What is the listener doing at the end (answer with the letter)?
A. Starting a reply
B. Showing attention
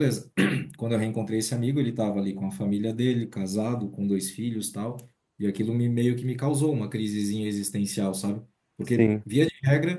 B